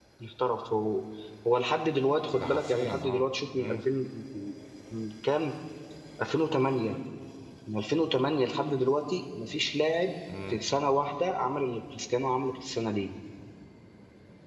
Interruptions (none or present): present